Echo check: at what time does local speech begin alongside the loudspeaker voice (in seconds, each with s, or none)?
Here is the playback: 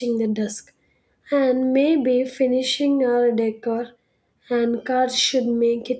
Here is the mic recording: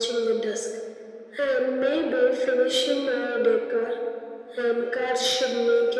none